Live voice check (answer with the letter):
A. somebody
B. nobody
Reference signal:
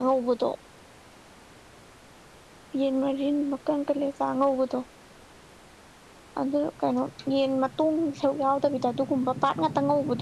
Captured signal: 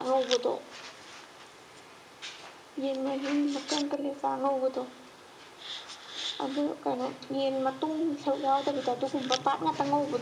B